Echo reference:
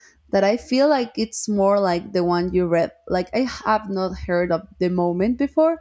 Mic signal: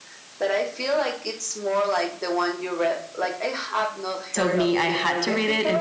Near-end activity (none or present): present